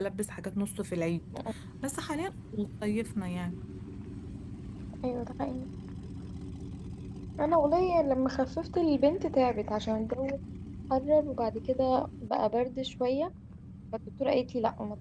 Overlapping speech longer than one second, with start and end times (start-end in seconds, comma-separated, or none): none